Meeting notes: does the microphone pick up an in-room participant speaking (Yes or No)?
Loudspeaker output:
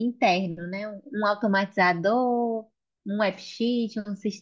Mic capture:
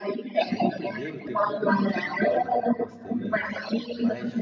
Yes